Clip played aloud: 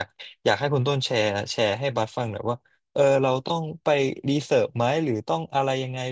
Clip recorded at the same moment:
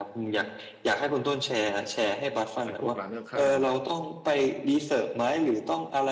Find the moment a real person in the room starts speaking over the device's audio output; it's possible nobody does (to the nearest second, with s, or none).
3 s